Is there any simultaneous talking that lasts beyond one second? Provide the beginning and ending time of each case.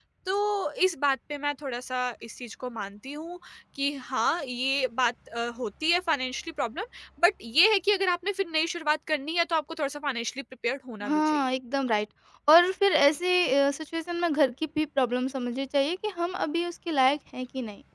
none

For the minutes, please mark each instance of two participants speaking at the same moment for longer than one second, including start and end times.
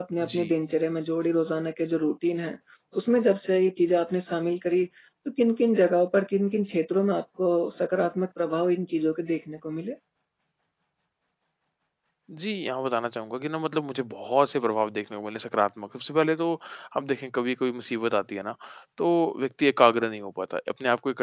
none

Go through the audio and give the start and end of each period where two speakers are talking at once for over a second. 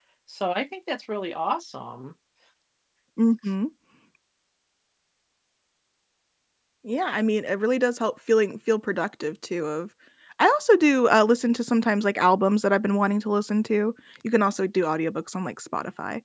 none

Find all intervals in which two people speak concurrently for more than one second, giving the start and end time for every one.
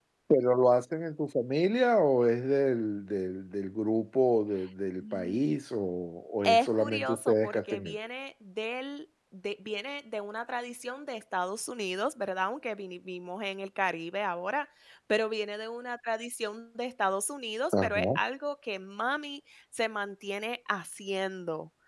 6.4-8.0

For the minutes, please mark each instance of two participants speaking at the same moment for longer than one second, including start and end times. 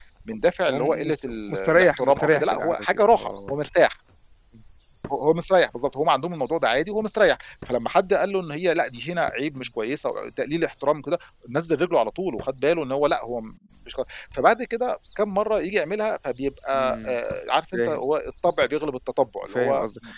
0.7-3.5

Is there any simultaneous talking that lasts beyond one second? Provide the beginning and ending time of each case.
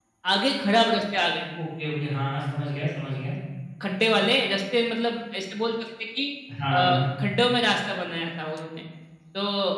none

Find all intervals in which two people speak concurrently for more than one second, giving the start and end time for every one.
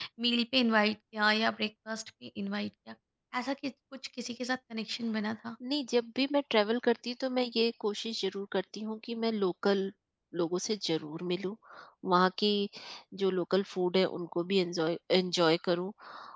none

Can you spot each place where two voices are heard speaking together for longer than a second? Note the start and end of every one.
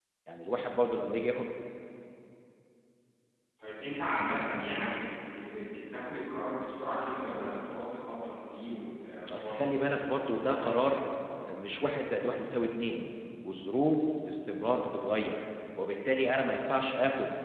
9.3-11.0

